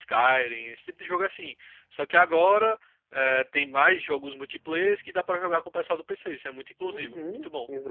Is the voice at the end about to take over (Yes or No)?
Yes